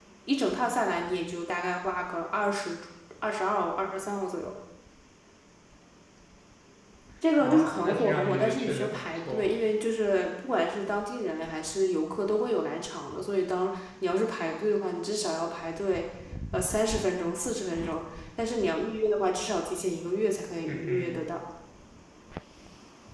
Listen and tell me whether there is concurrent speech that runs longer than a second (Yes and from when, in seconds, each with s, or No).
Yes, from 7.4 s